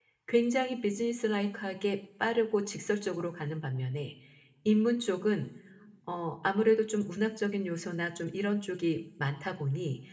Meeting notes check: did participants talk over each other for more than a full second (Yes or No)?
No